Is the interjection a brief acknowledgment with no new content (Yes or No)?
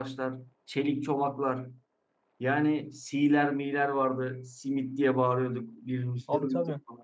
Yes